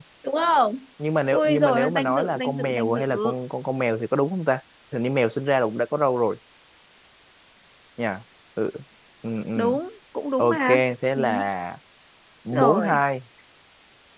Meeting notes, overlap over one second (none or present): present